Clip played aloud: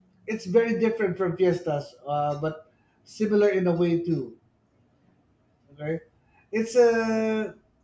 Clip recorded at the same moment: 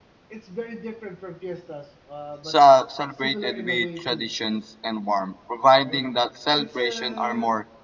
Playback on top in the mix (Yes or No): No